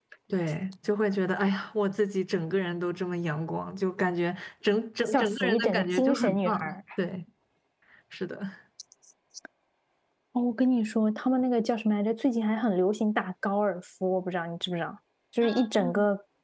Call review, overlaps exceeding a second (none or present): present